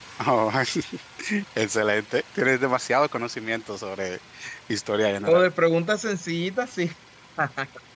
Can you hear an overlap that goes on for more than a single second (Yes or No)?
No